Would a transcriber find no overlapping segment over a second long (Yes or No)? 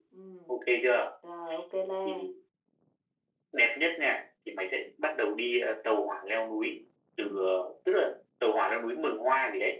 Yes